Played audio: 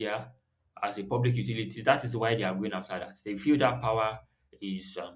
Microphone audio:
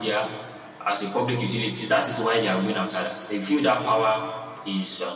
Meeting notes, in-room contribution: none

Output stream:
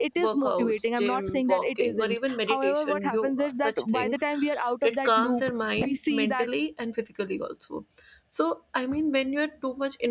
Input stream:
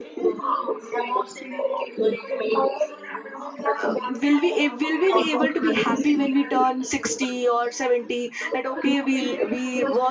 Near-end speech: present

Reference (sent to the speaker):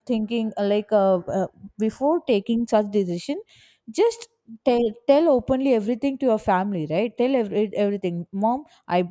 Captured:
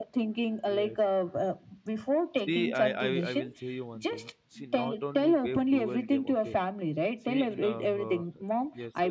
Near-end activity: present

